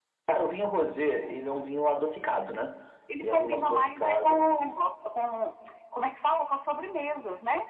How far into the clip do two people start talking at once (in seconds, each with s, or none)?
3.2 s